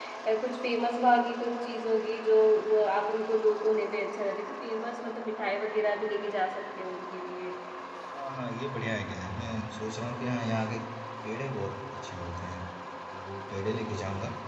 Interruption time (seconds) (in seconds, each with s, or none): none